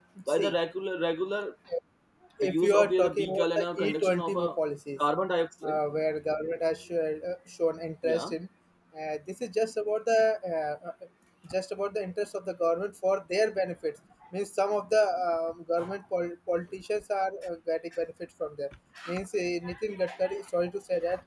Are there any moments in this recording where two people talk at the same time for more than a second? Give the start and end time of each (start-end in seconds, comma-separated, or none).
2.4-4.6